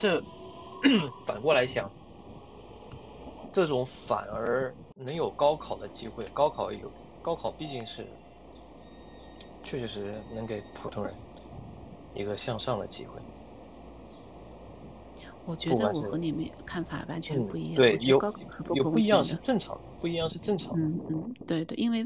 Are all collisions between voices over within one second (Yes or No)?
No